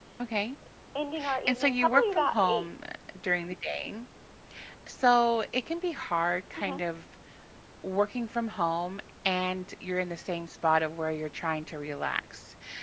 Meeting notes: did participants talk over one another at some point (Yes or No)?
Yes